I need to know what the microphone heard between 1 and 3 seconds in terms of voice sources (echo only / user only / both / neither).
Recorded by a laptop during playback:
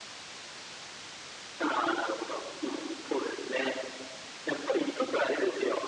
echo only